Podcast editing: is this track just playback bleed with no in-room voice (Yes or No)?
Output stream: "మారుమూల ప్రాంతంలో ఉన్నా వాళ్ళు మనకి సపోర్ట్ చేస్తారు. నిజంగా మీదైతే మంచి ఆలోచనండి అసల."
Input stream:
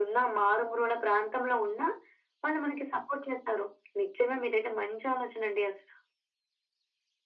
Yes